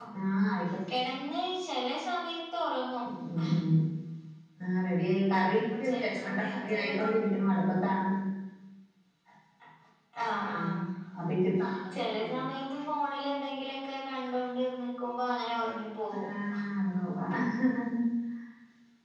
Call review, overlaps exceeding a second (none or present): present